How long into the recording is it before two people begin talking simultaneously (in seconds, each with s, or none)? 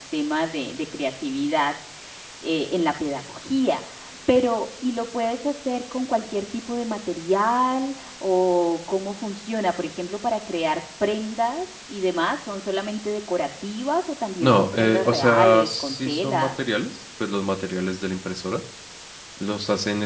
14.4 s